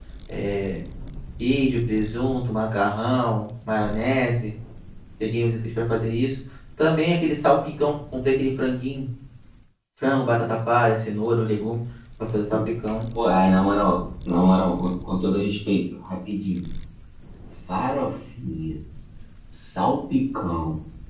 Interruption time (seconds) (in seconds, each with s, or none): none